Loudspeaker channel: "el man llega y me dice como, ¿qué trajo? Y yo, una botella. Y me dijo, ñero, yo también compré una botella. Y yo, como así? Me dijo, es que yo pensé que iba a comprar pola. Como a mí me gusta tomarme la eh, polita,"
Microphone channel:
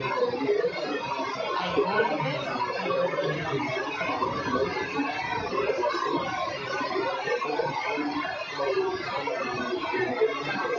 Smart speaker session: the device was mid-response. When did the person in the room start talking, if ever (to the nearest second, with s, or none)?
2 s